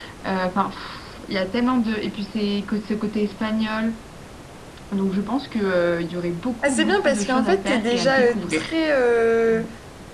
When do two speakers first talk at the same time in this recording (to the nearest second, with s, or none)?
7 s